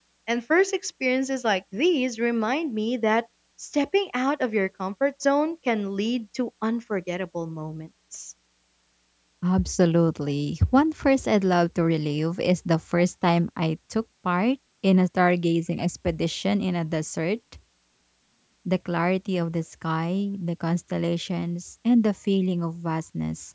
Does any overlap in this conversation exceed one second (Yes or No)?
No